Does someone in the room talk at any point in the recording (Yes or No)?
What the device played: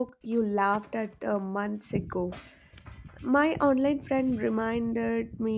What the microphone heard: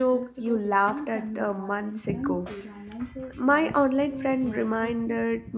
Yes